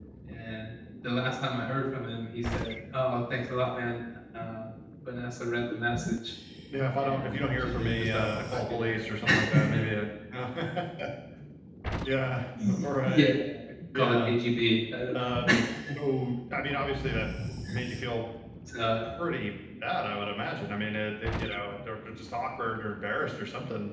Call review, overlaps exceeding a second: present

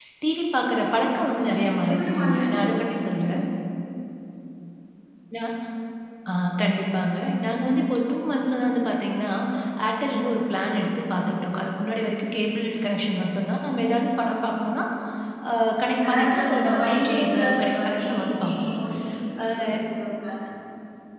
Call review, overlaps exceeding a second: present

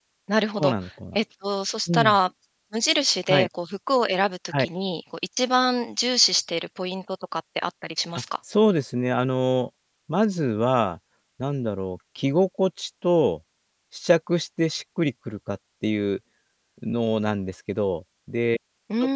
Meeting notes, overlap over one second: none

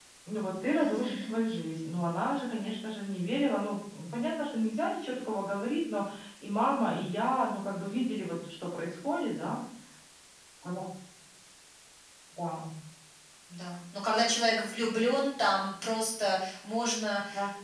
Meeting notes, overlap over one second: none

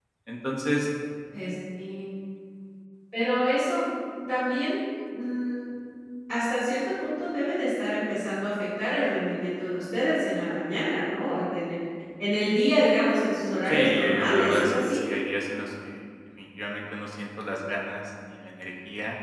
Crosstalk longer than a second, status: present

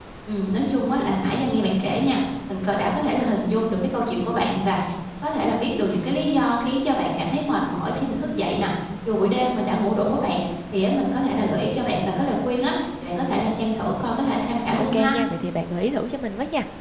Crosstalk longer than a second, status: none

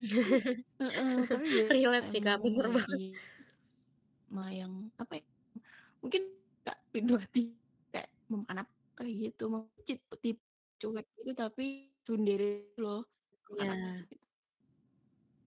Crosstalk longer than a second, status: present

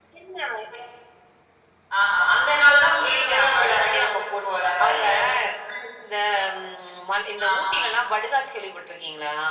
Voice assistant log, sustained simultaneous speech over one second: present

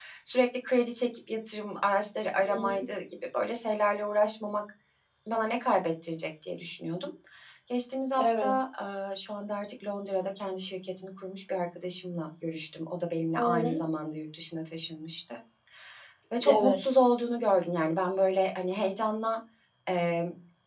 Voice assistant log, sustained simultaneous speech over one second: none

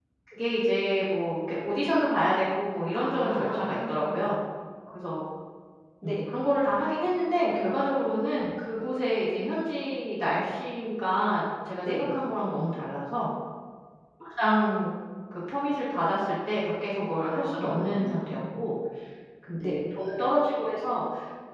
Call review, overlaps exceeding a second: present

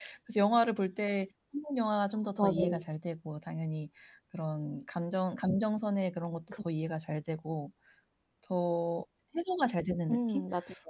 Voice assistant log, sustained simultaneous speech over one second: none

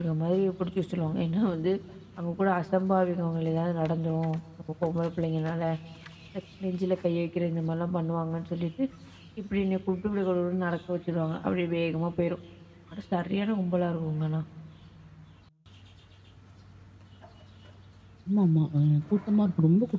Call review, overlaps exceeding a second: none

